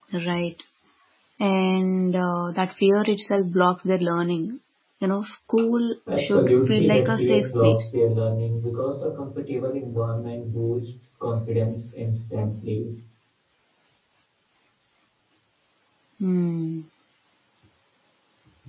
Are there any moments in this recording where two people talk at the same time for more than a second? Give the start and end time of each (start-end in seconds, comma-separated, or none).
6.1-7.8